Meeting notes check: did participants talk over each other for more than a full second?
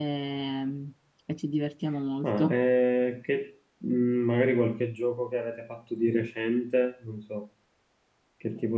No

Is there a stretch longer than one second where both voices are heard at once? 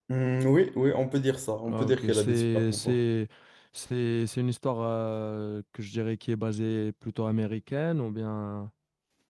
Yes, from 1.6 s

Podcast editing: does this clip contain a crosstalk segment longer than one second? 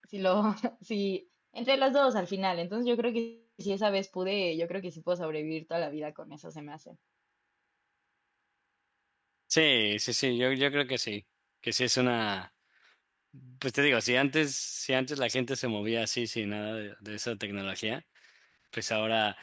No

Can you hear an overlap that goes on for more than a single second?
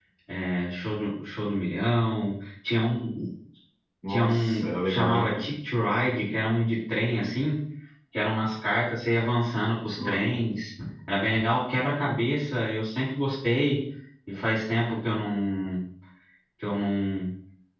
Yes, from 4.1 s

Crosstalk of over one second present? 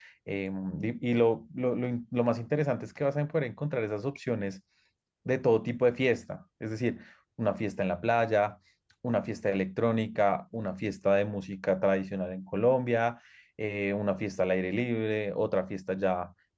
No

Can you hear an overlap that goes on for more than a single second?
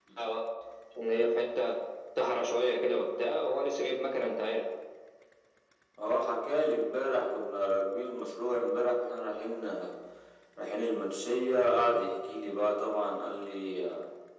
No

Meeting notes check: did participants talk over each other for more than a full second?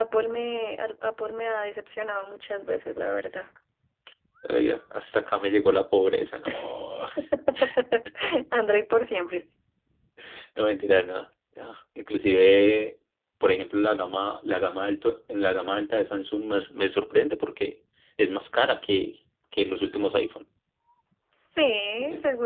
No

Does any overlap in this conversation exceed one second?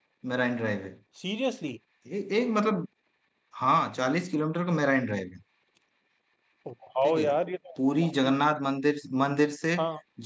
No

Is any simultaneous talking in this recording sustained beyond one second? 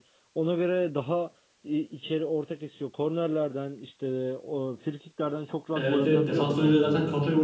Yes, from 5.7 s

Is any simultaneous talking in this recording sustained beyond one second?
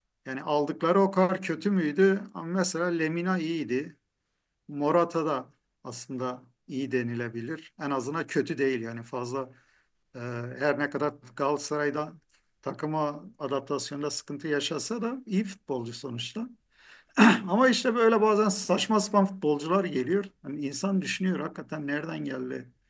No

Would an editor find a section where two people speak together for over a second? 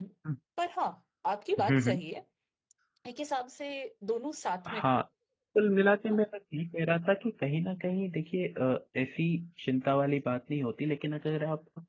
No

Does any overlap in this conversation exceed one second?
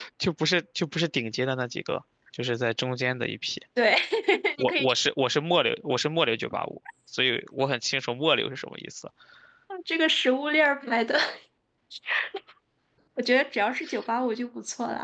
No

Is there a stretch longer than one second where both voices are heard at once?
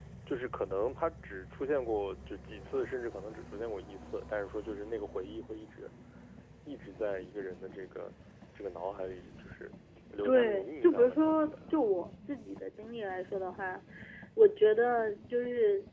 Yes, from 10.2 s

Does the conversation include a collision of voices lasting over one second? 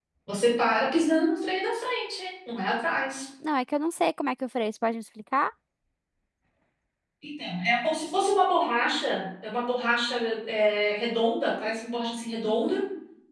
No

